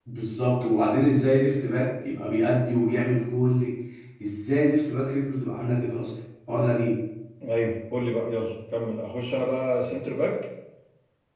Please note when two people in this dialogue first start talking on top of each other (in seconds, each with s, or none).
none